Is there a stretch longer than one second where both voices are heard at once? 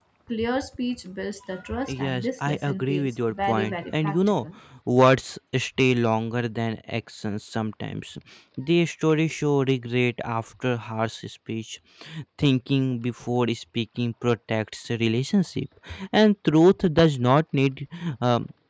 Yes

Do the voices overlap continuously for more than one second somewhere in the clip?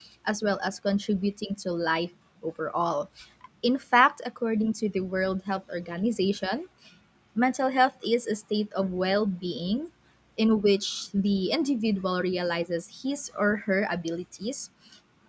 No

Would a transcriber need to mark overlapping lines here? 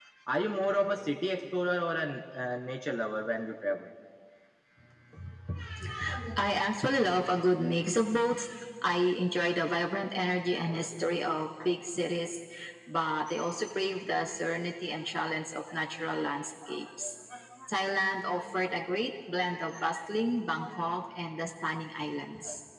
No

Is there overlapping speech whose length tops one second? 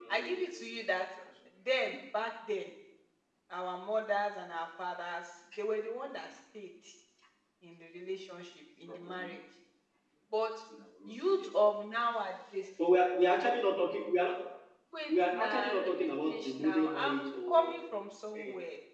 Yes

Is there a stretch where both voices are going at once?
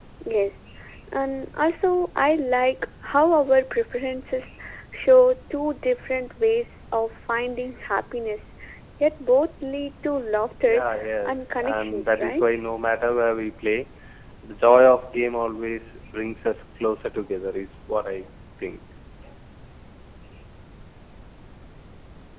Yes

